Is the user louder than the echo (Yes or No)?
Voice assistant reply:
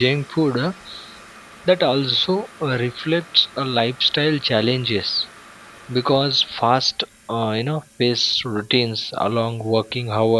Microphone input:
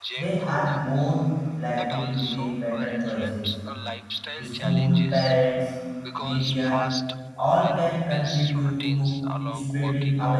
Yes